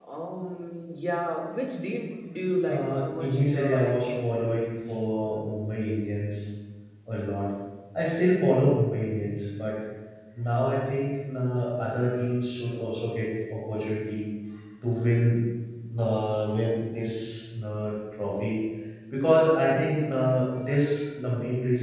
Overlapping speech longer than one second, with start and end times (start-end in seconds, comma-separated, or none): 2.7-4.2